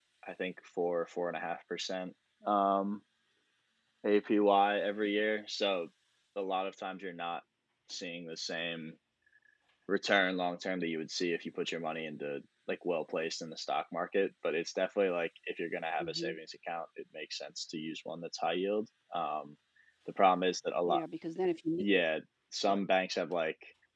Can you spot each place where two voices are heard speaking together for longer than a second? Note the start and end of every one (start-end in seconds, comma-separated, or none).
none